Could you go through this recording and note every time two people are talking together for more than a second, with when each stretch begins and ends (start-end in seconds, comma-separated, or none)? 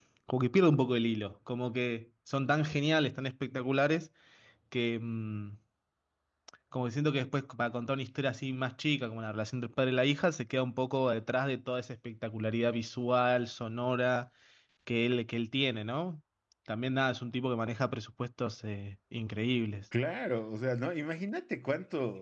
none